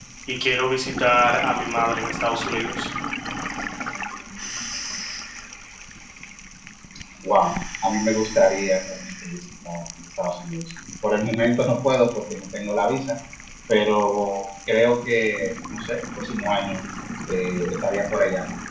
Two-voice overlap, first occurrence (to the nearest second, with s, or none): none